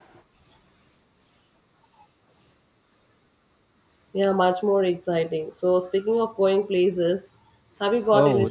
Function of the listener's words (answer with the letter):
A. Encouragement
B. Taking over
B